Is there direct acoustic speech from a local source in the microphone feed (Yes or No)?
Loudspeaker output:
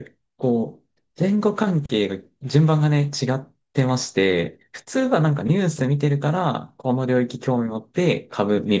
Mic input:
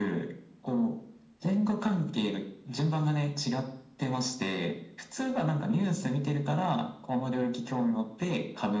No